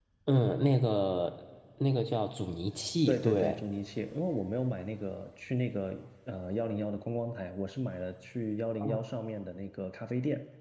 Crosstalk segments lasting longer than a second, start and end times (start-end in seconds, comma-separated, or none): none